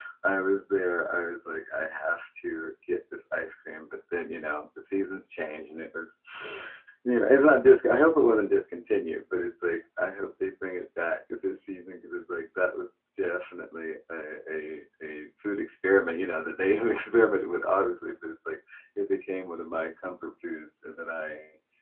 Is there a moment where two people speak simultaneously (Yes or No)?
No